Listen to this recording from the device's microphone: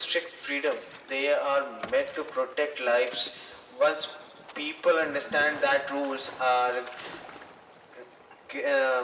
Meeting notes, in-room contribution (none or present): none